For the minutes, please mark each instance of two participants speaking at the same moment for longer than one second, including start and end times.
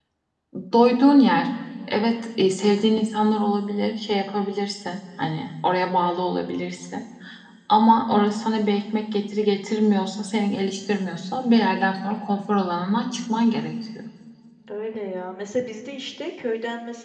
none

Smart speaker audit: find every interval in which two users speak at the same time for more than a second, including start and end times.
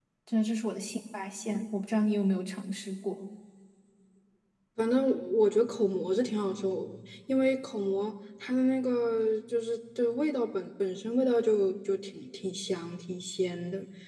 none

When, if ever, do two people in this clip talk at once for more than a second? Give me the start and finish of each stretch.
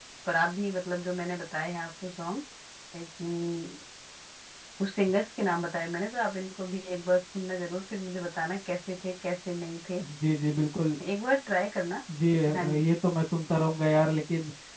none

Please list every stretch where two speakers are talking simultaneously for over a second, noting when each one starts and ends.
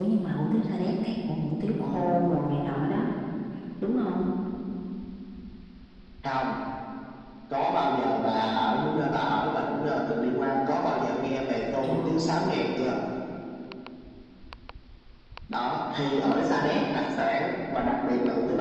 none

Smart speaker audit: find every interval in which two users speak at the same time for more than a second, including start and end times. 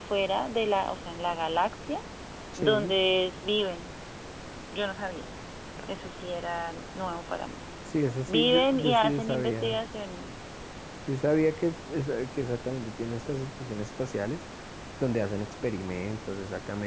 8.3-9.8

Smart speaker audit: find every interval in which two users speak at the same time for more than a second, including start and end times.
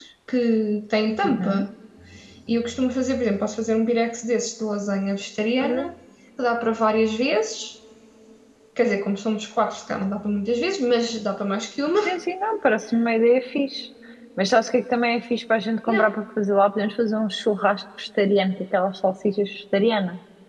none

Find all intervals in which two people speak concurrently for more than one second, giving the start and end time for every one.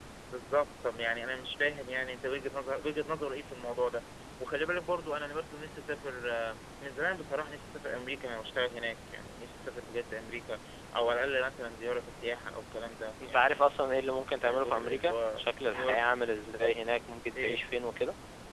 14.4-16.0

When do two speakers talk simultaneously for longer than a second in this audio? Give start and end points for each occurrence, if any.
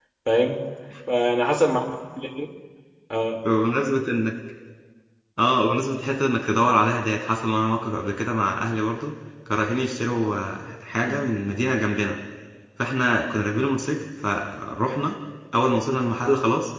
none

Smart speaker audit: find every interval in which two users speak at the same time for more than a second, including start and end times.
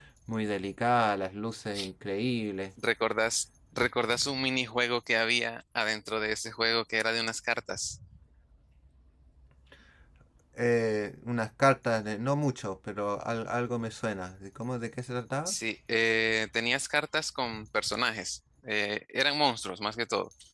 none

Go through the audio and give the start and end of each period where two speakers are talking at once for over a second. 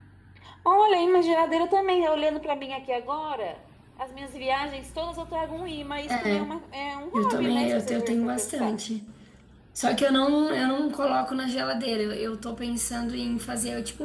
7.1-8.8

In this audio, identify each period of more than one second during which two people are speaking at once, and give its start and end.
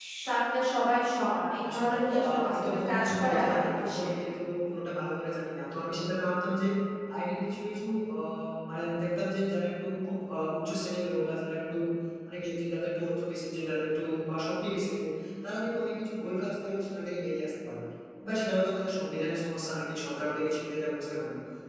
1.7-4.0

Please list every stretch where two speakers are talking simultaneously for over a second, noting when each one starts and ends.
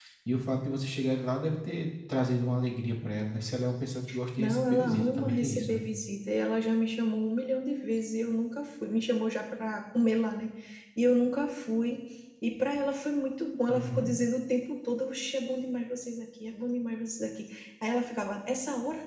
4.4-5.8

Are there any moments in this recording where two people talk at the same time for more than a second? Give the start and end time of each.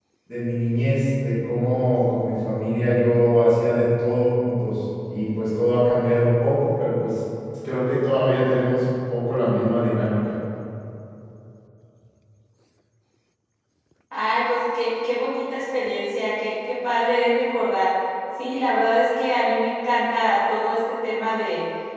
none

